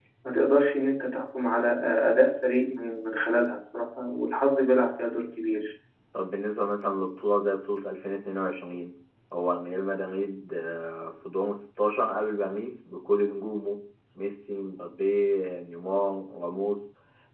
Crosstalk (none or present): none